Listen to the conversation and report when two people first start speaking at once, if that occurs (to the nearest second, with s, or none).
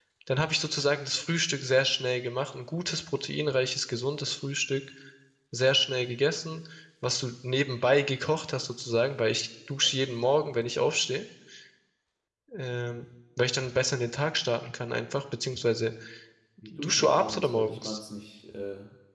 17 s